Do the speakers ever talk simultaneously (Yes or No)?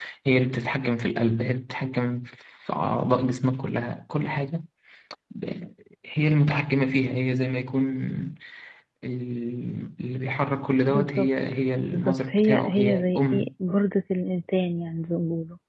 Yes